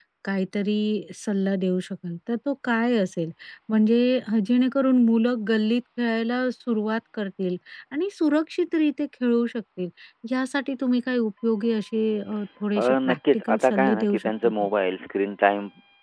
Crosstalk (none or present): present